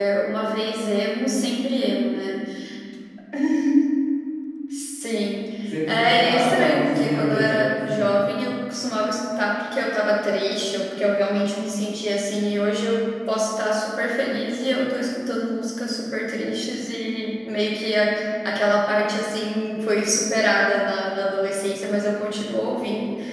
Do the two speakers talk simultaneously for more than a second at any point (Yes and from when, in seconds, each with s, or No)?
Yes, from 5.9 s